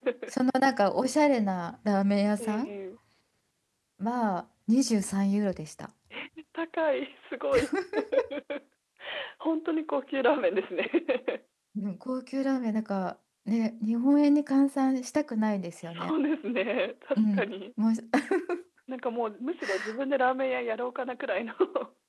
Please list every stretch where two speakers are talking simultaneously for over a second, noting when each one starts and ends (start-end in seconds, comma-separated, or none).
none